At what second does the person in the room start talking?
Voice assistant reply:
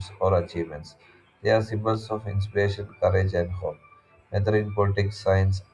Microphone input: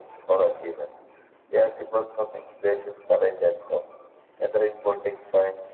none

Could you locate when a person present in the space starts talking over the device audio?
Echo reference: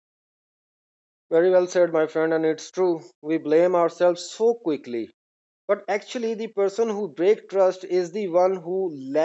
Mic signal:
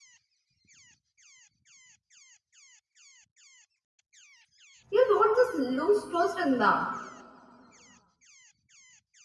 4.9 s

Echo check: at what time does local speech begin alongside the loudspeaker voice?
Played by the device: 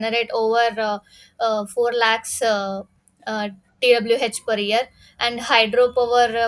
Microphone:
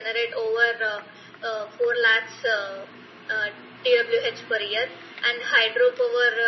none

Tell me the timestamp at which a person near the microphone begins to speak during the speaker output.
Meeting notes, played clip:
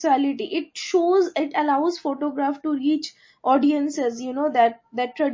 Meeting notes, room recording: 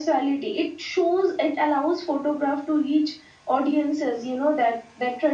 none

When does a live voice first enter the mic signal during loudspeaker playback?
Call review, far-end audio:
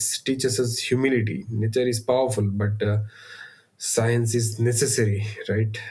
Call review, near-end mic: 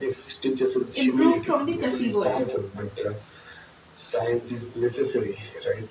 0.9 s

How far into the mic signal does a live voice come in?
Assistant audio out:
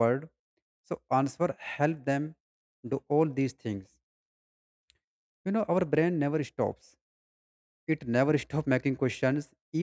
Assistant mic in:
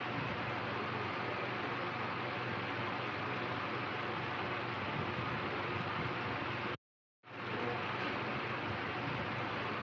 none

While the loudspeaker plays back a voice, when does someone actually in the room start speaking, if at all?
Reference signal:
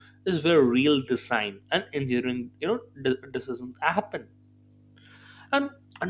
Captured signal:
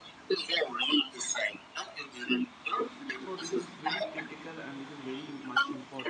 3.1 s

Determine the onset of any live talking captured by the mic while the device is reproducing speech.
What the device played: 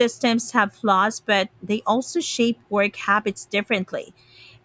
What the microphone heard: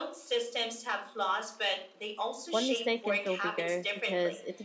2.5 s

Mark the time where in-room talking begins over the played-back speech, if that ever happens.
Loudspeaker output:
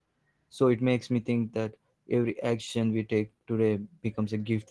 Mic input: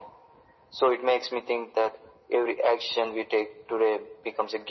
none

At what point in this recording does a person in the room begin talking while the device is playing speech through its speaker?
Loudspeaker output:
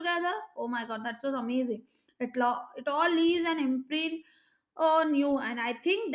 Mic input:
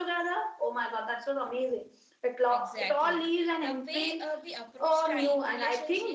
2.5 s

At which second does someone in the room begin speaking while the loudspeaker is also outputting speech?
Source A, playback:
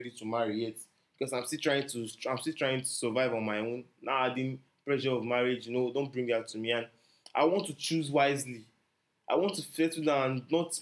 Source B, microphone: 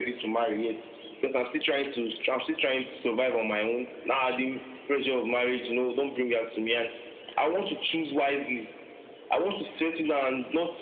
none

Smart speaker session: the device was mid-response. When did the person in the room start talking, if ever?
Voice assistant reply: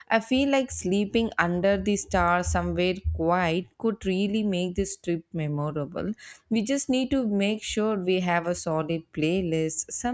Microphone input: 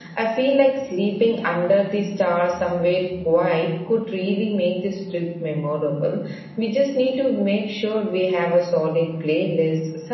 none

